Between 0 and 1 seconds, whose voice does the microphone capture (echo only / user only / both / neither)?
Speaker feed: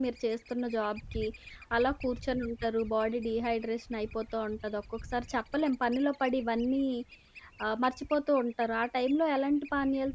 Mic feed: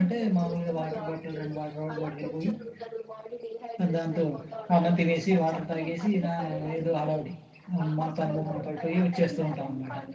both